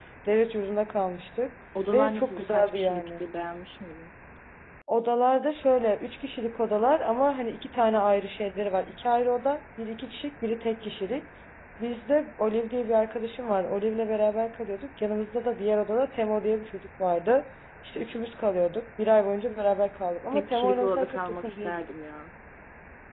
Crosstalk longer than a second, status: present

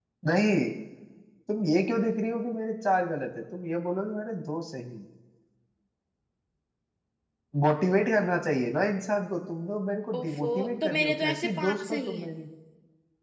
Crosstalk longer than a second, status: present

